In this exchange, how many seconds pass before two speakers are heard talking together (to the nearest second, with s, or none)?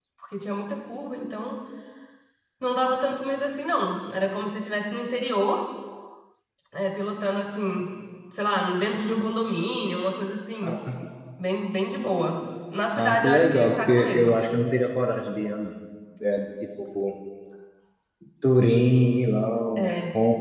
13 s